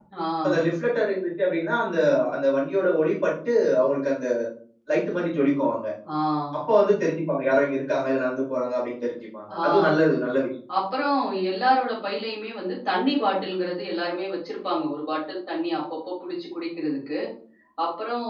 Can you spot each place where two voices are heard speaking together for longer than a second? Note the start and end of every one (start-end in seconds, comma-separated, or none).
none